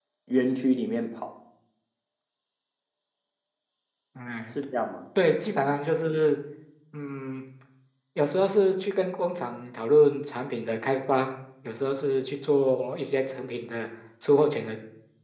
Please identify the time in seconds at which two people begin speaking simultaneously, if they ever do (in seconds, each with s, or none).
none